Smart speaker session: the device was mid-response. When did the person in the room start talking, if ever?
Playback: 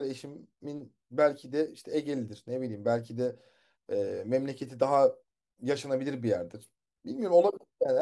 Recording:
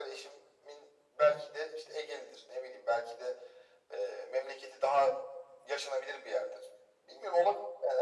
none

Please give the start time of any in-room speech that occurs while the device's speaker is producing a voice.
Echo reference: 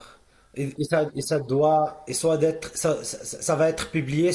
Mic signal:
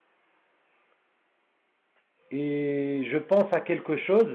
2.3 s

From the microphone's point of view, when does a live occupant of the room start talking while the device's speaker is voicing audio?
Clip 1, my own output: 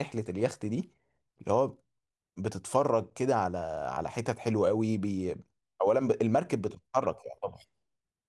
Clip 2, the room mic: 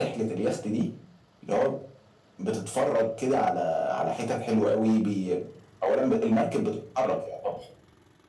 none

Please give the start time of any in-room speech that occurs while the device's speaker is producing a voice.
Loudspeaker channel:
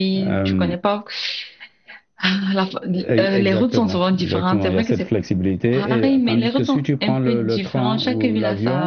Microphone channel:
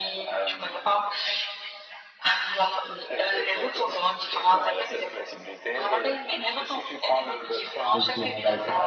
7.9 s

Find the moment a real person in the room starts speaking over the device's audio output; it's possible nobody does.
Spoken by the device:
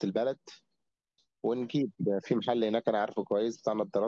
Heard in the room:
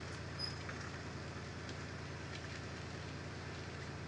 none

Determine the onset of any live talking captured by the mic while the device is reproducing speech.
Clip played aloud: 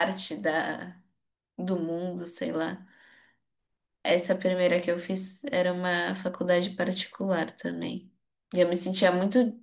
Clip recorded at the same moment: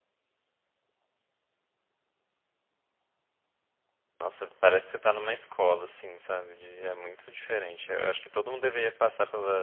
4.2 s

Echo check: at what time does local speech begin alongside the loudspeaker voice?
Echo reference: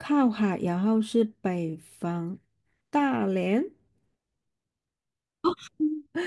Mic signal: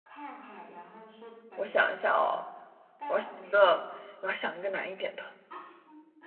1.5 s

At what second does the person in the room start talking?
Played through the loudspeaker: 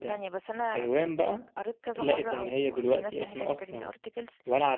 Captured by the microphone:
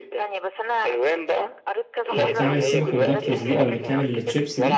2.1 s

